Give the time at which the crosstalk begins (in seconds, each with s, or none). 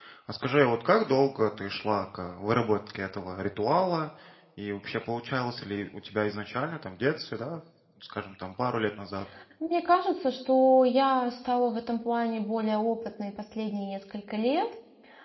none